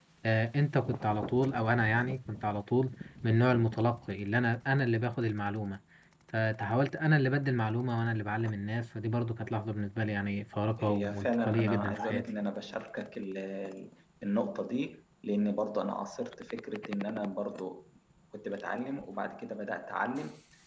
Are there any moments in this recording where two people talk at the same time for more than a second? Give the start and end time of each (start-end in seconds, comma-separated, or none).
10.8-12.3